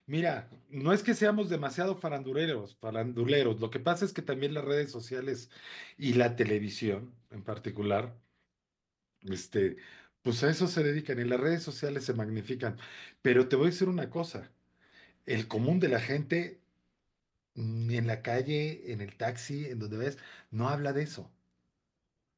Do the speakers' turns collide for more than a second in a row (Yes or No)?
No